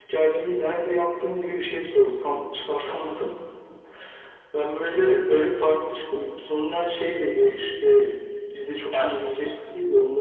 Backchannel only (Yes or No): Yes